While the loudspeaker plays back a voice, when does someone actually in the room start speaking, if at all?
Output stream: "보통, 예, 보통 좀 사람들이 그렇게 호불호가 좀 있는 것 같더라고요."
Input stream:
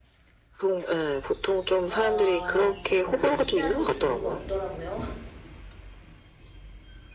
1.9 s

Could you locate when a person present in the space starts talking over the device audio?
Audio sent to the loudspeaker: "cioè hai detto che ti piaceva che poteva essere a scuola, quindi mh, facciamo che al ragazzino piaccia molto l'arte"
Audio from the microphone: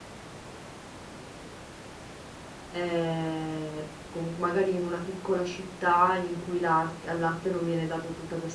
2.7 s

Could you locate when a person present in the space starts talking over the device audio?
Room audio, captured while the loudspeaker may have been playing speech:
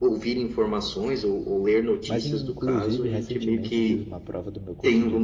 2.0 s

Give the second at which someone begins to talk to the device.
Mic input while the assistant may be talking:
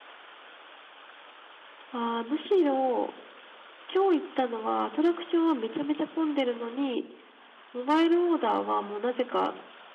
none

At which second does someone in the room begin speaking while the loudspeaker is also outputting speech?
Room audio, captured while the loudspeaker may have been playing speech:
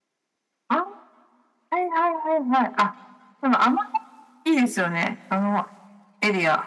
none

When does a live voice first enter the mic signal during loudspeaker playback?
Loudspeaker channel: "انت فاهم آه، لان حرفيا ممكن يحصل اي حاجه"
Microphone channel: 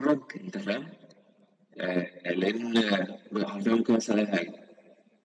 none

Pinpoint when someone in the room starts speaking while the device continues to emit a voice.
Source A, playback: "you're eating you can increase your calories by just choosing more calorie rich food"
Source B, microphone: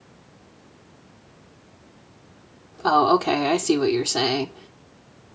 2.8 s

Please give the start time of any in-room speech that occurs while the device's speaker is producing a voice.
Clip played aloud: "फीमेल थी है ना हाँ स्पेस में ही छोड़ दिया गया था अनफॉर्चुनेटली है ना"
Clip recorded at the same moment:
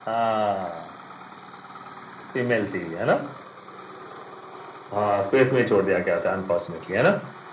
none

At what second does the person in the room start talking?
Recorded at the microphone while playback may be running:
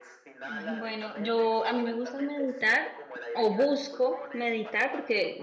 0.4 s

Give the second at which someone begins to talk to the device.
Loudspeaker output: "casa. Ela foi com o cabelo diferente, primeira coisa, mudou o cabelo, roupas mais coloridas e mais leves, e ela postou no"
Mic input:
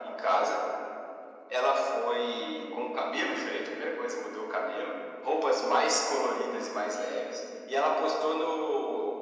none

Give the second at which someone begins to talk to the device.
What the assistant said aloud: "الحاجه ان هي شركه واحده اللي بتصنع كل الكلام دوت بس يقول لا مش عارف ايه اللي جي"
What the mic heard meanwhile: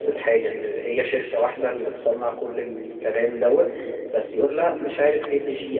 none

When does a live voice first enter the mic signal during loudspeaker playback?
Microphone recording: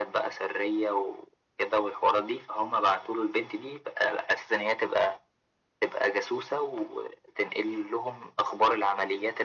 none

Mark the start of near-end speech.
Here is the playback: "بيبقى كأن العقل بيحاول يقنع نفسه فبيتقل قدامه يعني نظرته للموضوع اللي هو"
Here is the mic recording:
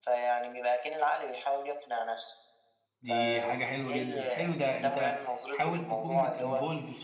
3.0 s

